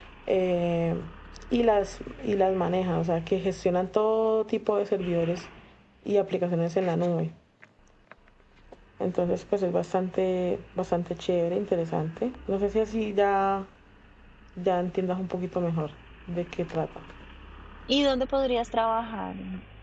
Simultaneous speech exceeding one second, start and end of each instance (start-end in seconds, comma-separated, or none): none